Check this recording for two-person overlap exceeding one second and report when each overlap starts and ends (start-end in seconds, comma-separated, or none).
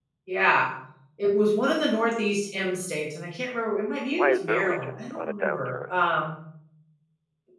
4.1-6.0